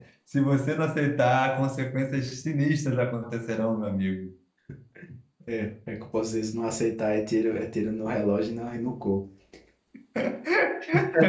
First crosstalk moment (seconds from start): none

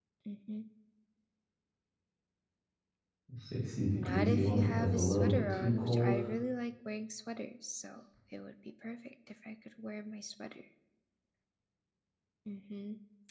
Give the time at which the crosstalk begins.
3.9 s

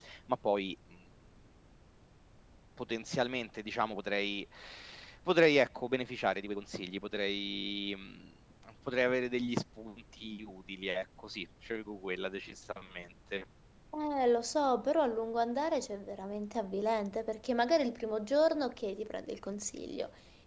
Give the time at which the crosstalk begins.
none

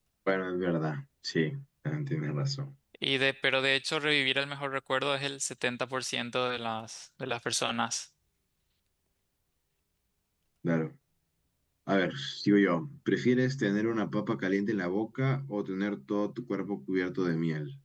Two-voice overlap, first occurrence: none

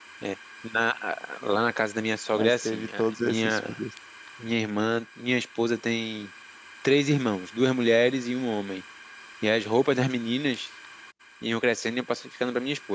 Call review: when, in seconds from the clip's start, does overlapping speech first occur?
2.3 s

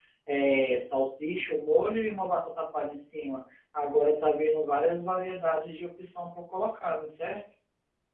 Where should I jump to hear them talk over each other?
none

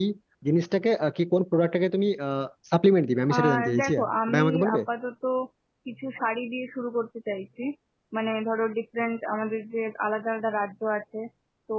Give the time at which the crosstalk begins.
3.3 s

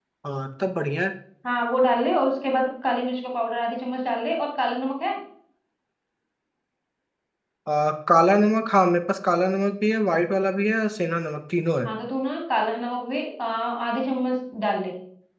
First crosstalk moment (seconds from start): none

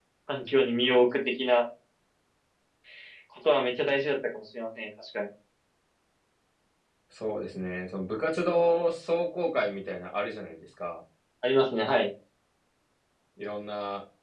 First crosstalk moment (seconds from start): none

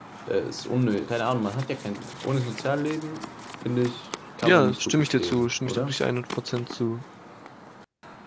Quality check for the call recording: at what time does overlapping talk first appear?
4.4 s

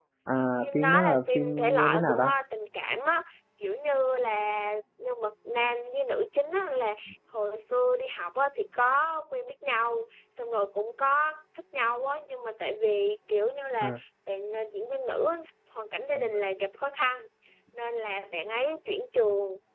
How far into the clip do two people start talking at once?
0.6 s

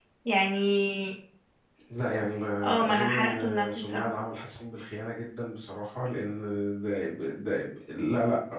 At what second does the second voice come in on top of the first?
2.9 s

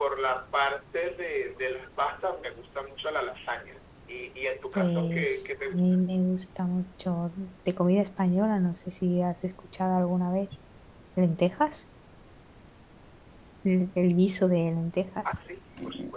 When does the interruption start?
4.8 s

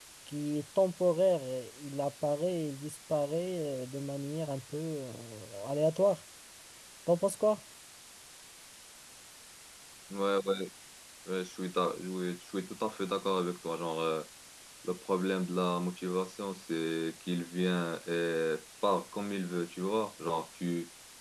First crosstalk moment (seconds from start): none

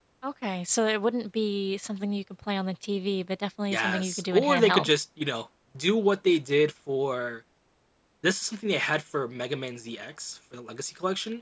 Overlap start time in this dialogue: 3.7 s

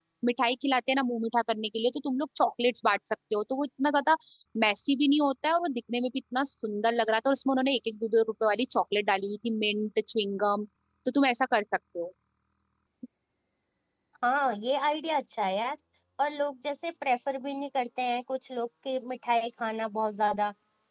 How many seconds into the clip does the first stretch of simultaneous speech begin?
none

